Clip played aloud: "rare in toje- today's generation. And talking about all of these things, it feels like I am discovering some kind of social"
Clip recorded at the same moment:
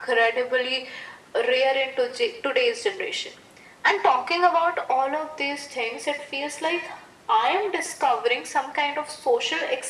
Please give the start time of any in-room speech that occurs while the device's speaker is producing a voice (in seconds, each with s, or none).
none